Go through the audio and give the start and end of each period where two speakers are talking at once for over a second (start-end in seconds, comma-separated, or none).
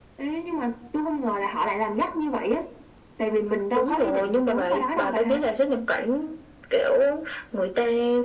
3.8-5.4